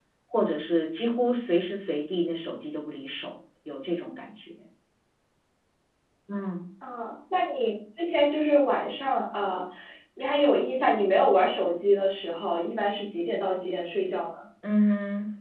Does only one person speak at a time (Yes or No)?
Yes